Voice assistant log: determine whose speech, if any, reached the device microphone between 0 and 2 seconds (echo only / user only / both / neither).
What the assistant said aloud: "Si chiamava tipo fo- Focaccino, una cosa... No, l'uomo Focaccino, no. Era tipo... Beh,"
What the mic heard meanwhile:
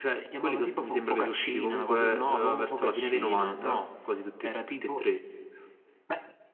both